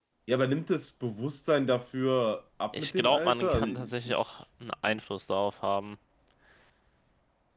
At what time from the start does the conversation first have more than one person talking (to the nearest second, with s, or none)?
3 s